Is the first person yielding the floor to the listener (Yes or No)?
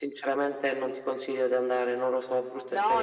Yes